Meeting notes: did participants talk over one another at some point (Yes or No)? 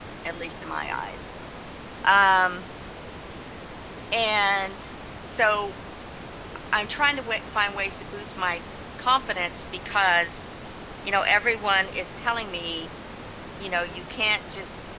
No